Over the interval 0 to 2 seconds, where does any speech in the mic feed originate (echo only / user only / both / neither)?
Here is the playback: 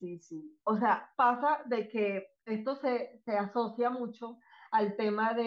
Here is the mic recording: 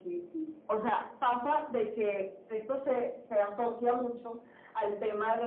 echo only